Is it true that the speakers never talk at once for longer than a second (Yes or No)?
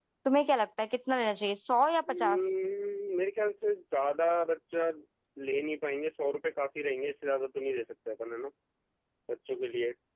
Yes